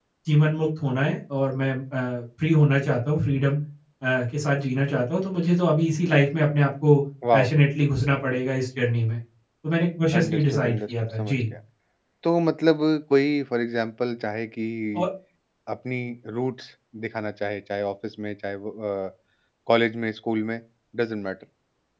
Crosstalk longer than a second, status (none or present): present